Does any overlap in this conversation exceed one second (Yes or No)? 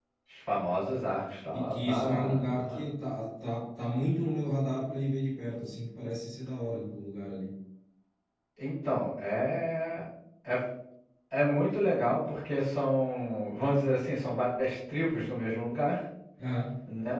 Yes